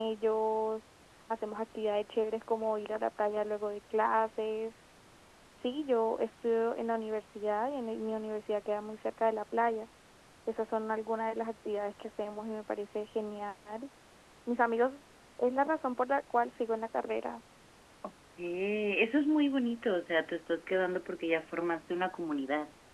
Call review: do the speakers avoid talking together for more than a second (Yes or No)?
Yes